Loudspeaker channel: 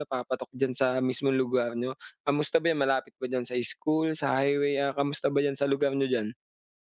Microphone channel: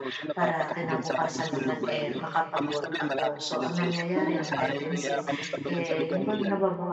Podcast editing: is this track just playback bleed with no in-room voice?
No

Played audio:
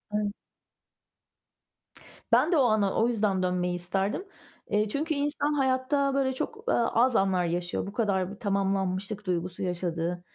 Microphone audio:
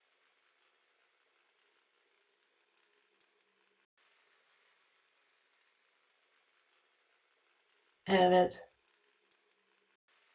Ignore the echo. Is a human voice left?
Yes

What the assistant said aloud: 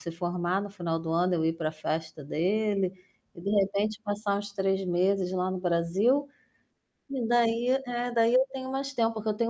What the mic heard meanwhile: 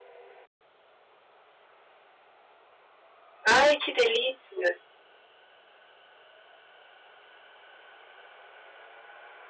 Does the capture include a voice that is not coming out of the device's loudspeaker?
Yes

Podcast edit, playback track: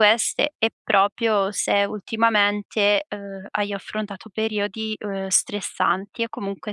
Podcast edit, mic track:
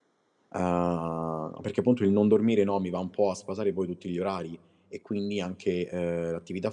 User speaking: Yes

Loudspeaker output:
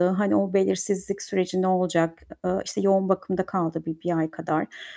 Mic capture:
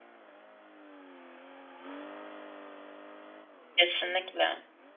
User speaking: Yes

